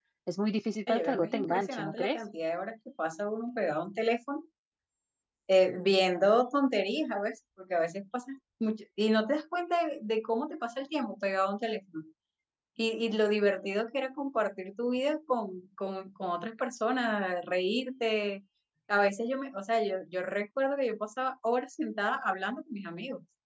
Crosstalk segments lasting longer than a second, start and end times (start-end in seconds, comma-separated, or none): 0.9-2.2